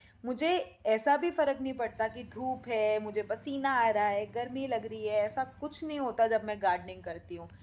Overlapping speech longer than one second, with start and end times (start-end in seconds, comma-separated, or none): none